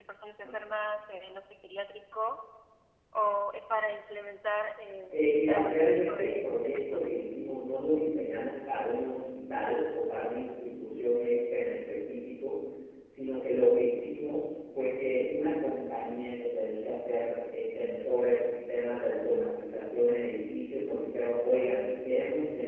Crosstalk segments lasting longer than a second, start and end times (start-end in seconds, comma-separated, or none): 5.5-7.1